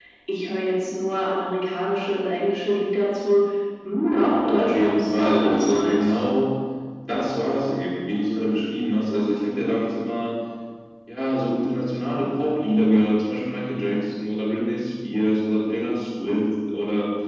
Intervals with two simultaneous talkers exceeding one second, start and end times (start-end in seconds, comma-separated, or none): 4.4-6.2